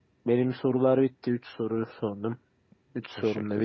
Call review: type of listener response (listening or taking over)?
taking over